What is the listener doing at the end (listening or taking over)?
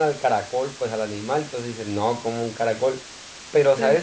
listening